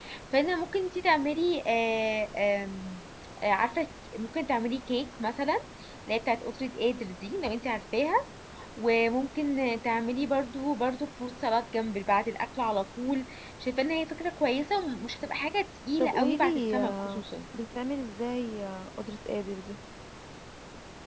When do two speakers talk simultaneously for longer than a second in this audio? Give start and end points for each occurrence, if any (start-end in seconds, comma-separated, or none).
16.0-17.2